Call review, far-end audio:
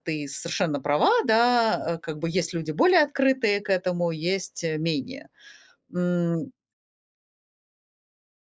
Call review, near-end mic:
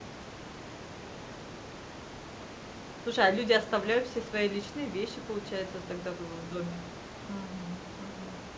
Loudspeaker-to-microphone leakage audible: No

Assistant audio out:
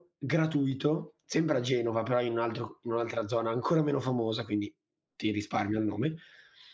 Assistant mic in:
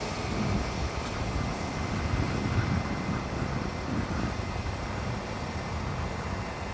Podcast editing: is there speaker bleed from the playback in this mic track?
No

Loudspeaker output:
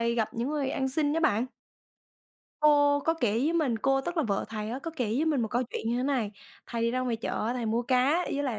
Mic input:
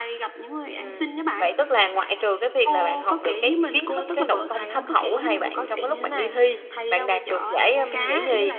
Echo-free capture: No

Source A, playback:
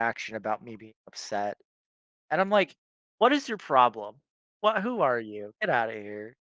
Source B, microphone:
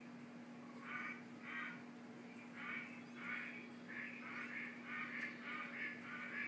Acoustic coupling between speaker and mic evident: No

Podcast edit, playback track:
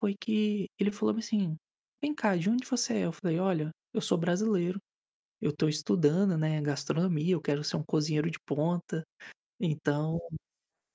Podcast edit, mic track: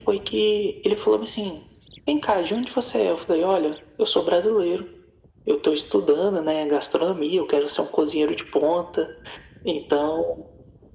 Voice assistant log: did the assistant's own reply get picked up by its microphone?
Yes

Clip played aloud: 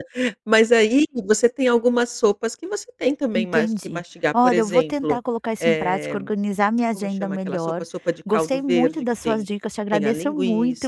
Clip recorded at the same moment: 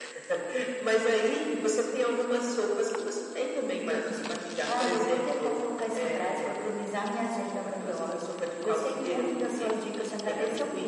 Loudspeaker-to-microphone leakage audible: Yes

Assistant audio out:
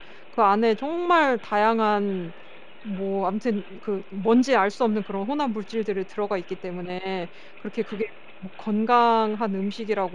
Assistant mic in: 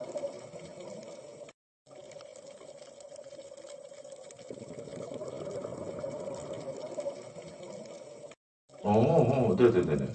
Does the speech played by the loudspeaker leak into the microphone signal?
No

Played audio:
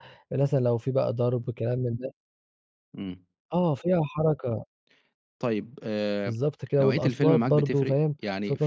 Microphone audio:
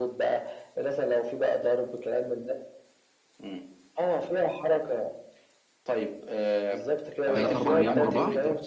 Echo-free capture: No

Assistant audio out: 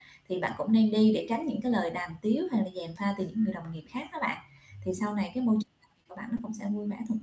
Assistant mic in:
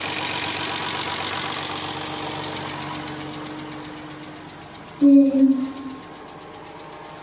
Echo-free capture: Yes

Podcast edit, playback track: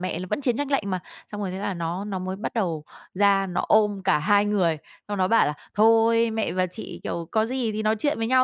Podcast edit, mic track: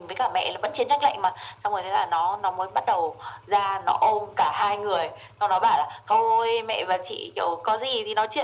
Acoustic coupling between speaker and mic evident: Yes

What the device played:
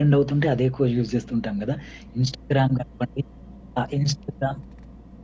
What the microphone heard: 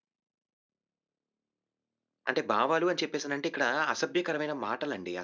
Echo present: No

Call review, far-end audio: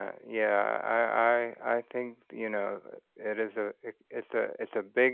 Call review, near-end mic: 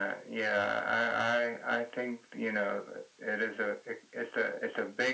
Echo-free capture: No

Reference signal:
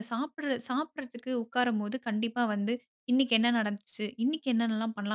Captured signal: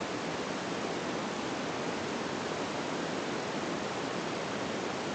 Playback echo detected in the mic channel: No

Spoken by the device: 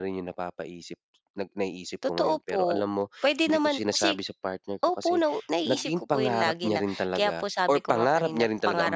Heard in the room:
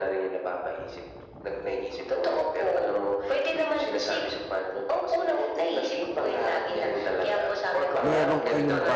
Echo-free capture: No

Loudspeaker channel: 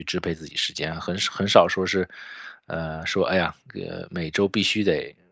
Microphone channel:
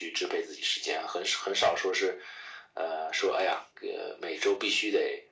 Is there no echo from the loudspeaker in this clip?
No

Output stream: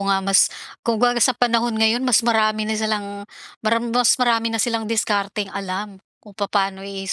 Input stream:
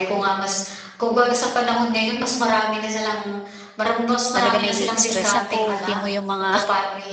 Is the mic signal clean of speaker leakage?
No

